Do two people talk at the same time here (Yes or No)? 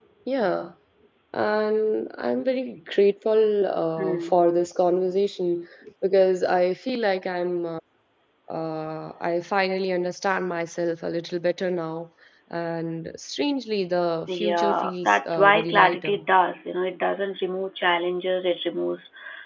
Yes